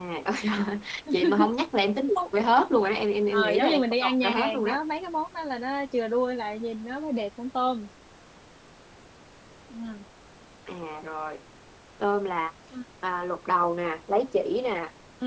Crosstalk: present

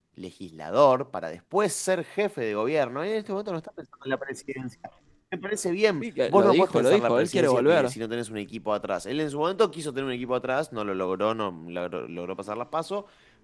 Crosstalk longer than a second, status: present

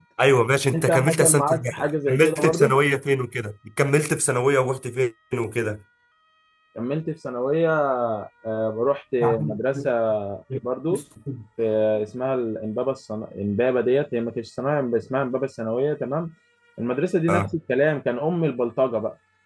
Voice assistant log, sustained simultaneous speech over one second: present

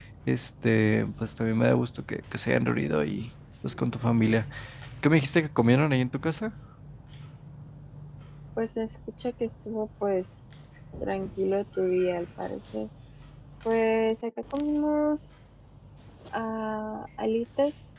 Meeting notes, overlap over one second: none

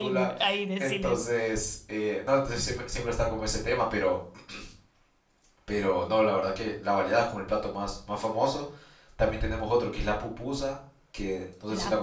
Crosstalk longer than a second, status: none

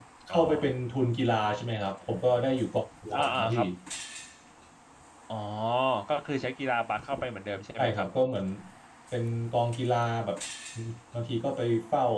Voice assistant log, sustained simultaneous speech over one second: none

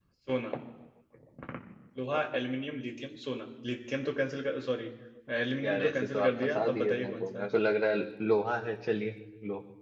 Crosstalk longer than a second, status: present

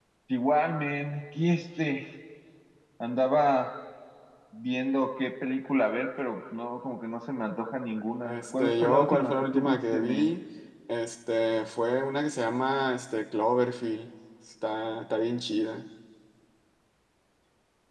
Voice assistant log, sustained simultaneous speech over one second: present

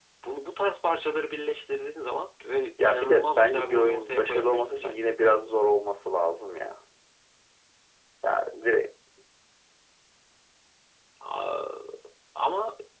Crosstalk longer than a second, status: present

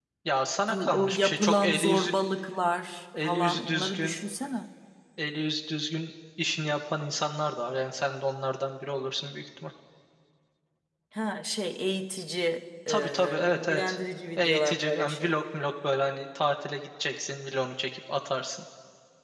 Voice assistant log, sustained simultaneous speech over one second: present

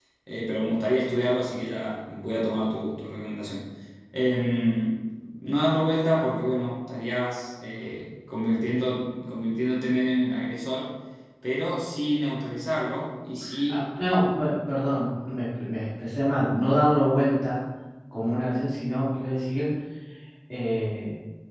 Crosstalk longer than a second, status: none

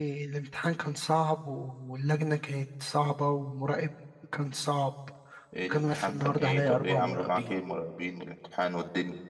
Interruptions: present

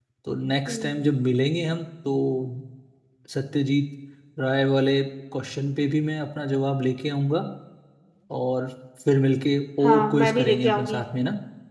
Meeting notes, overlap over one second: present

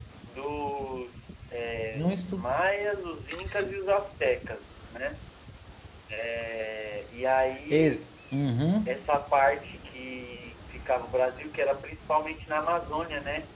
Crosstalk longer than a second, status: none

